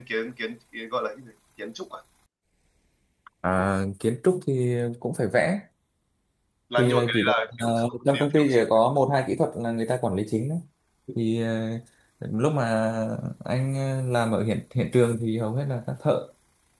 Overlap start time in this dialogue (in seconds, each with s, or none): 6.8 s